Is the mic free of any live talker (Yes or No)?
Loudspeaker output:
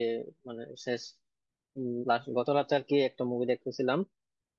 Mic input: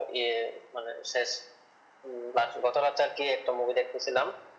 Yes